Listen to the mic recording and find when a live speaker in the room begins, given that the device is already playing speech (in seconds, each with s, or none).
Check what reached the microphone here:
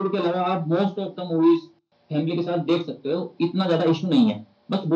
none